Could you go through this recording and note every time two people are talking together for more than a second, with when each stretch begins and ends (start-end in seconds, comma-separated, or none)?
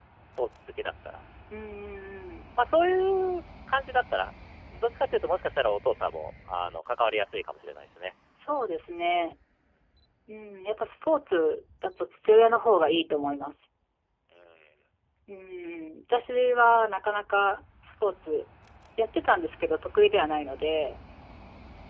none